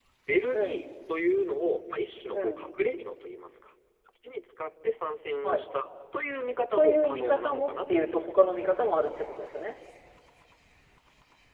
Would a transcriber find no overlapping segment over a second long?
No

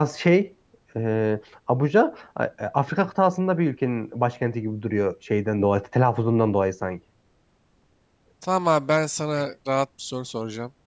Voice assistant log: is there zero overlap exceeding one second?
Yes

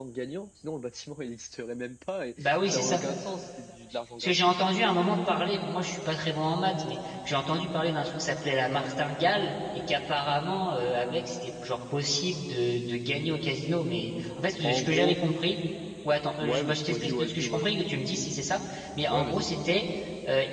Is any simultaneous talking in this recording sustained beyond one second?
Yes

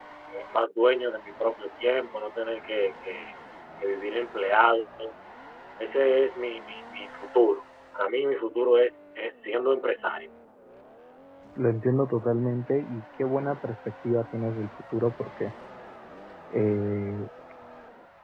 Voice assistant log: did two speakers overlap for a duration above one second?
No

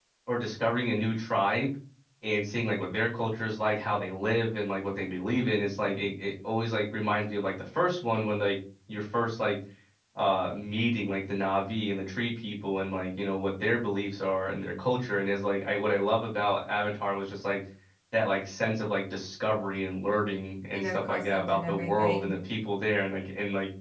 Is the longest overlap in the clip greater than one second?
Yes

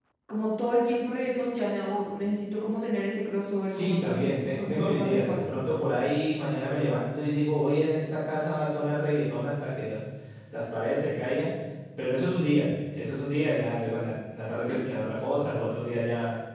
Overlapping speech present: Yes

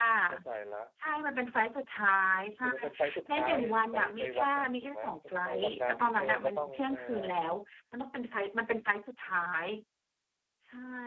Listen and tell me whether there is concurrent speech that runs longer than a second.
Yes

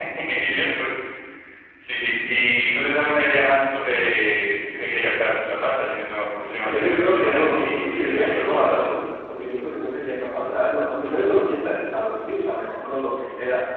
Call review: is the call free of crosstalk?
No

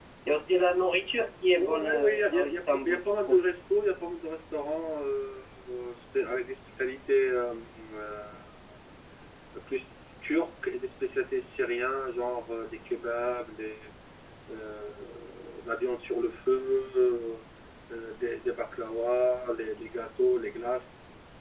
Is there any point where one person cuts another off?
Yes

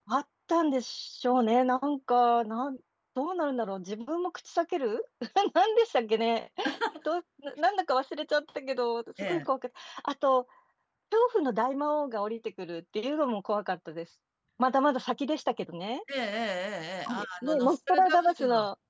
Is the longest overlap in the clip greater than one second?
Yes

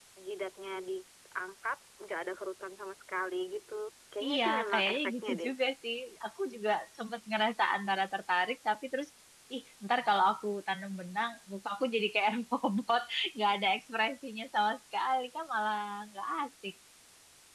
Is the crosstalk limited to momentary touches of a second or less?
No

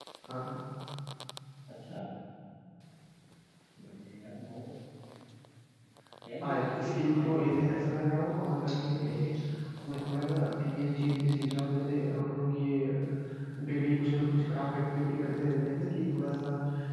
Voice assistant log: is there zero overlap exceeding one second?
No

